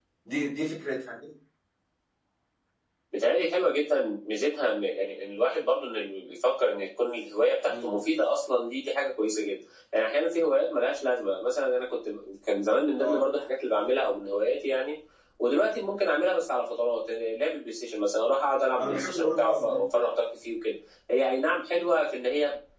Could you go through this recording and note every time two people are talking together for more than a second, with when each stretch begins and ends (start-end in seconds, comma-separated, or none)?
18.8-20.1